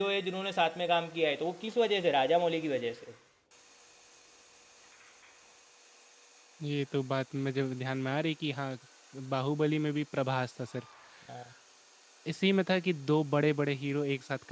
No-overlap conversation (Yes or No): Yes